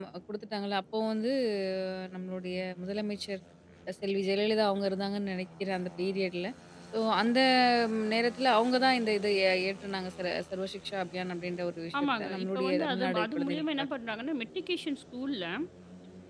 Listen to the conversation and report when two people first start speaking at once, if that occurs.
12.2 s

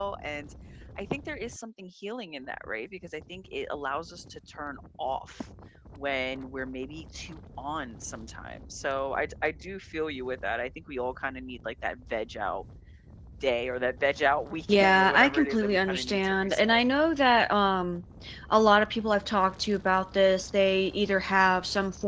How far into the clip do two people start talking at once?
14.7 s

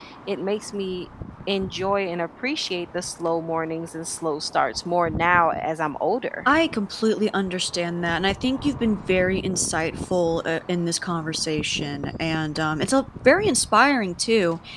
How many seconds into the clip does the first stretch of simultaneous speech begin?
none

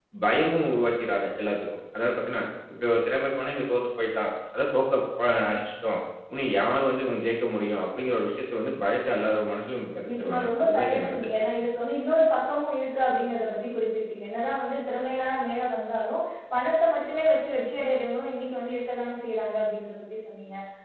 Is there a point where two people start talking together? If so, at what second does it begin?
10.1 s

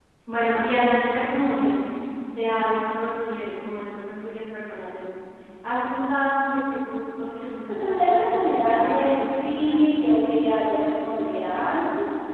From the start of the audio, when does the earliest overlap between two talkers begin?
7.7 s

